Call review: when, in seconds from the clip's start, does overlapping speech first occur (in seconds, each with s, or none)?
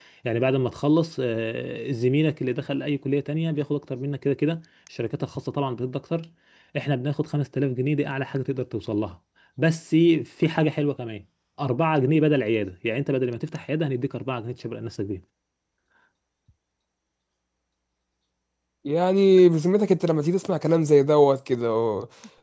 none